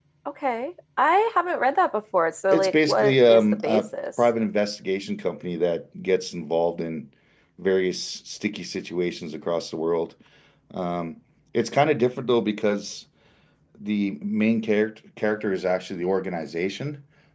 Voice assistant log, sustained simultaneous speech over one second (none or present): present